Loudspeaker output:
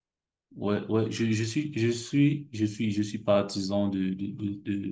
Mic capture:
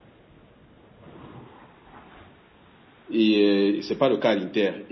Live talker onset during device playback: 3.1 s

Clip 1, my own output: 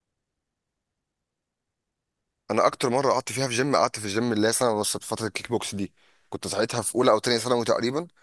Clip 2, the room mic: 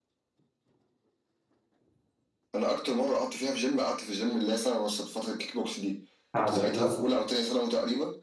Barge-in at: 6.3 s

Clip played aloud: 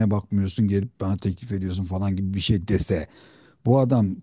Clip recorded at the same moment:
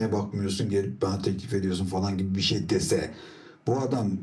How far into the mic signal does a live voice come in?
none

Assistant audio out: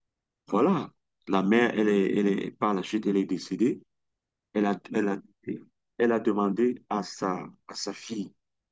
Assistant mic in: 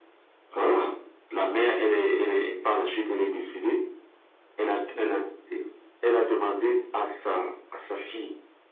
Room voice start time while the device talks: none

